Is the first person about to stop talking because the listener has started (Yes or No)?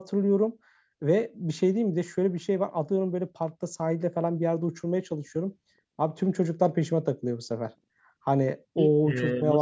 Yes